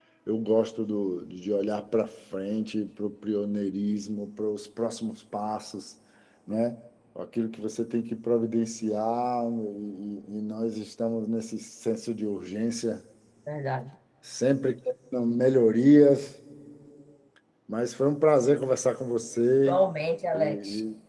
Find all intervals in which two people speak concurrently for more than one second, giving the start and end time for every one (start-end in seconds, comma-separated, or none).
none